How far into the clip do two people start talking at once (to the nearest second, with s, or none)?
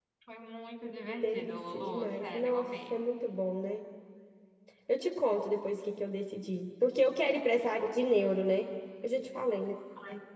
1 s